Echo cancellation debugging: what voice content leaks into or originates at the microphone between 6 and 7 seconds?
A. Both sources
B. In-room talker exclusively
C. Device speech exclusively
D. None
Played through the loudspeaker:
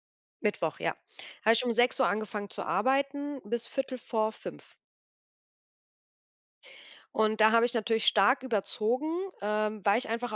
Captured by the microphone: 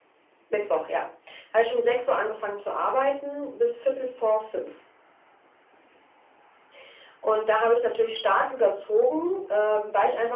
D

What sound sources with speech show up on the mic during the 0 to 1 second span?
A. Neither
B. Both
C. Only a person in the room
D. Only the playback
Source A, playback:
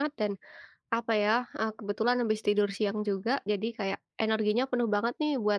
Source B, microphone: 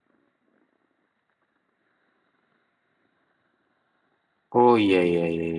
A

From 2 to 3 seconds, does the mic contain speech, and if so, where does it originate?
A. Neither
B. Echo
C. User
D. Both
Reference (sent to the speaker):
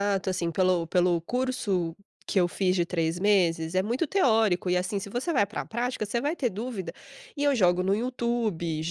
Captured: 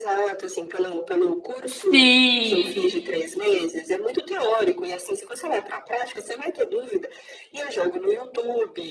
D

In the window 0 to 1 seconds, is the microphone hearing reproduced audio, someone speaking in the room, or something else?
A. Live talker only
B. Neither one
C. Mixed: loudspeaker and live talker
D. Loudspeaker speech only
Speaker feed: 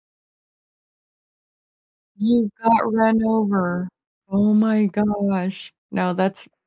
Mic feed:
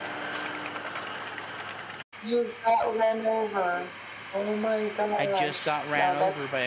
B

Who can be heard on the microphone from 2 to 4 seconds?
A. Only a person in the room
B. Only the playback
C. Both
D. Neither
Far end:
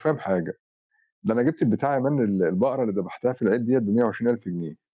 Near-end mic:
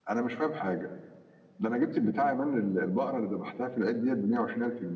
B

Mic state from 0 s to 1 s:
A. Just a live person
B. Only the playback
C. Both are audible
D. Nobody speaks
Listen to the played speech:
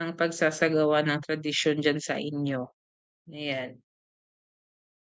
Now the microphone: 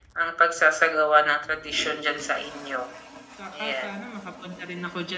B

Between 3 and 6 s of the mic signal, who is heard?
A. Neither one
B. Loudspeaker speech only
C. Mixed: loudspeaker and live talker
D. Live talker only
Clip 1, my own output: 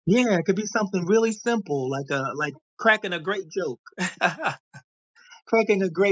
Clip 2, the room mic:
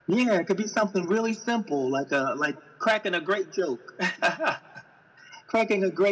B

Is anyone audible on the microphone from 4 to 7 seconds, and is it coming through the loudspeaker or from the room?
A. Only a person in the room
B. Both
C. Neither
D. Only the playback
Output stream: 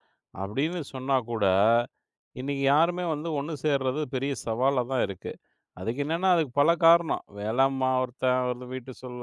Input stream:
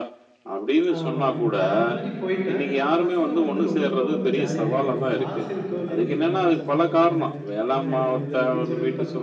B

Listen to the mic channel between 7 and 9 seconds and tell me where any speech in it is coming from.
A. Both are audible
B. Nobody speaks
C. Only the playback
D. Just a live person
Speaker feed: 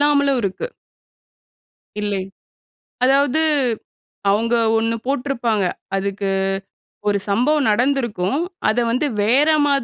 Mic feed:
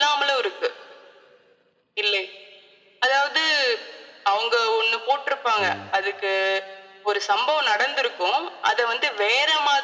C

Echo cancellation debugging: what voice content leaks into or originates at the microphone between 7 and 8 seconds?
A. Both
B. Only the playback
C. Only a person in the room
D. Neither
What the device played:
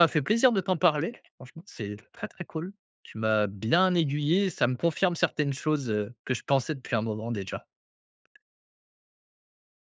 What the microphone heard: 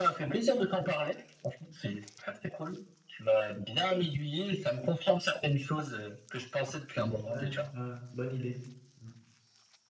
A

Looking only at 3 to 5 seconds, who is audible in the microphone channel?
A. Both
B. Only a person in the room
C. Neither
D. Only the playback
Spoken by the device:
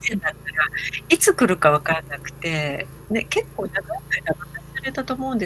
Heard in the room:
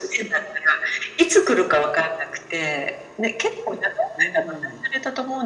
A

